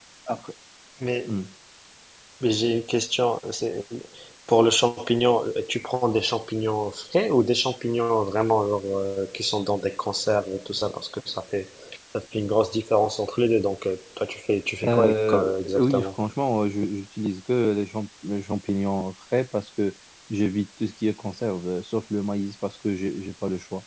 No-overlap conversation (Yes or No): No